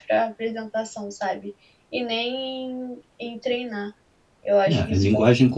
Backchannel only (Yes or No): No